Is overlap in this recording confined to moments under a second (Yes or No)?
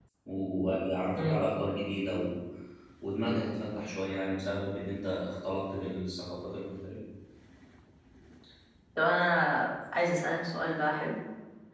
Yes